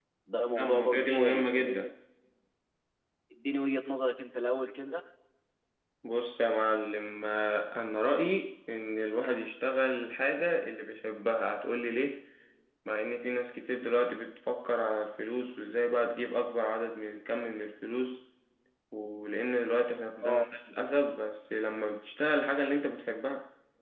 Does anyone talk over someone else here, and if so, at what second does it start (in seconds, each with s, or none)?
0.6 s